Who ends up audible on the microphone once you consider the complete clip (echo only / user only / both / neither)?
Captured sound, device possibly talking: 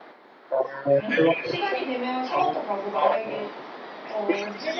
both